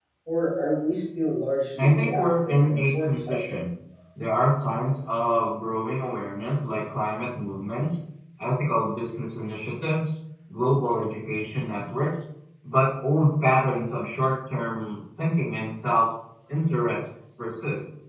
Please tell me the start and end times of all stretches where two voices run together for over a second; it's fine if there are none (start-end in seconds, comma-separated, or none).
1.8-3.6